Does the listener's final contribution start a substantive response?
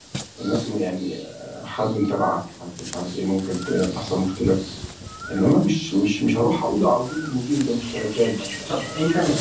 Yes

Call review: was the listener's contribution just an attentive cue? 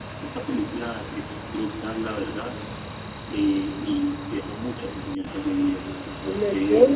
No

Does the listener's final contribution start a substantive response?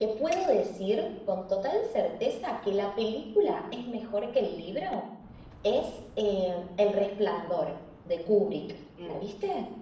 Yes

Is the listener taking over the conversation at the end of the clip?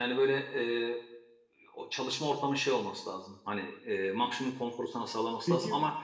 No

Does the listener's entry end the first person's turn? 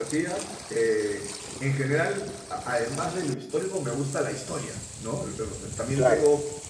No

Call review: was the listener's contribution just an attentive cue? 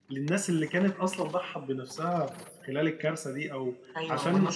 No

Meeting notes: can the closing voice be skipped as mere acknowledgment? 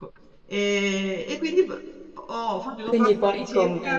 No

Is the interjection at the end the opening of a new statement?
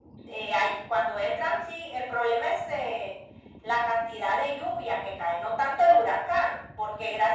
No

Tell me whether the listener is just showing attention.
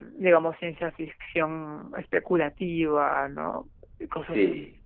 No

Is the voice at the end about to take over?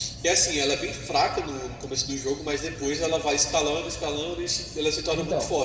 Yes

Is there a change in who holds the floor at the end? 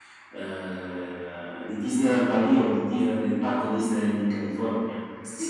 Yes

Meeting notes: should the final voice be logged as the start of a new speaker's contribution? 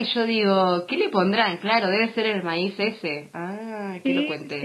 Yes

